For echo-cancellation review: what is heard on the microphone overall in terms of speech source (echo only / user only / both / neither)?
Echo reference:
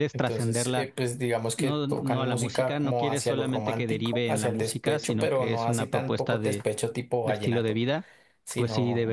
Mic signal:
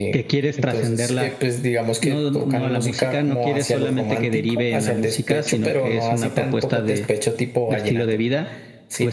echo only